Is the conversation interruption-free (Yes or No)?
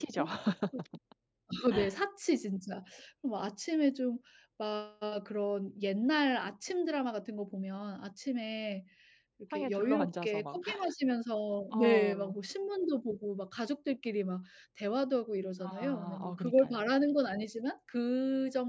No